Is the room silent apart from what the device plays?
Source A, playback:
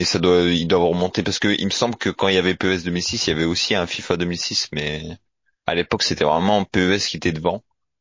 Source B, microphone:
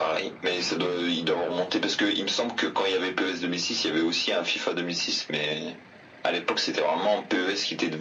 Yes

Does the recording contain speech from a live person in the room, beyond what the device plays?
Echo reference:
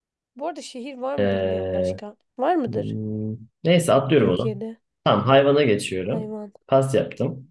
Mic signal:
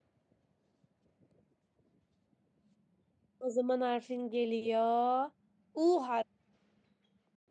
Yes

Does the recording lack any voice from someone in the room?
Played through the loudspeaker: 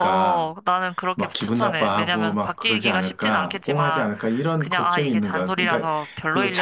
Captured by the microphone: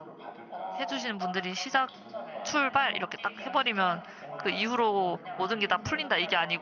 No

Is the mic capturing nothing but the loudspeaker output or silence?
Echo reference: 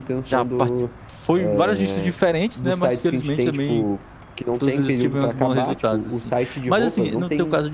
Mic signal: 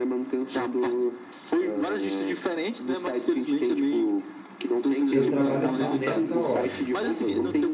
No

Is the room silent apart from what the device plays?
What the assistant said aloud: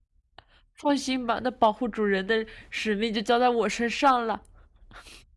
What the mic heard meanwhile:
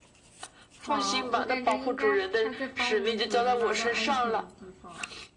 No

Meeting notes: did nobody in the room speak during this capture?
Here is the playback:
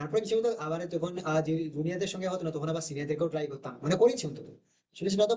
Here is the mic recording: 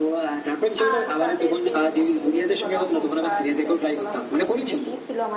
No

